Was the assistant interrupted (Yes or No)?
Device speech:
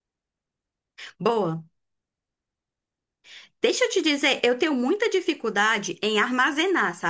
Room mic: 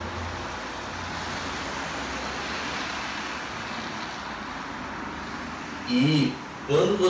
Yes